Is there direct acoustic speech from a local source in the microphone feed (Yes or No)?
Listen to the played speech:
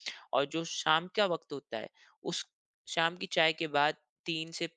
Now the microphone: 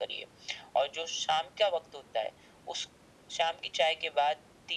No